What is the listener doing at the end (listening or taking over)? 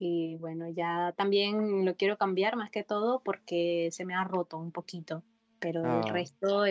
listening